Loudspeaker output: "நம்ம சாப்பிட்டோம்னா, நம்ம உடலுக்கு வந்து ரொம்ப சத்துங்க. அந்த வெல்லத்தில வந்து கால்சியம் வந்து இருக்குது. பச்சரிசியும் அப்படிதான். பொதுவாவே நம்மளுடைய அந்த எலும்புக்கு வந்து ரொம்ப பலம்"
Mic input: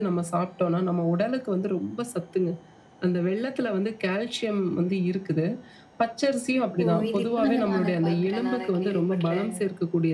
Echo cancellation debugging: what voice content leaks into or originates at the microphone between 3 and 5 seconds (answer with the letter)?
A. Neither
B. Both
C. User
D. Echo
D